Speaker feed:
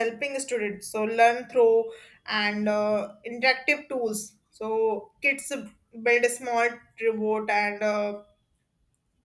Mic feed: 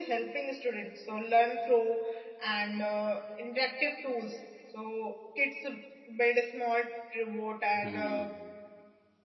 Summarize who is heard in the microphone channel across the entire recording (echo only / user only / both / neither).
both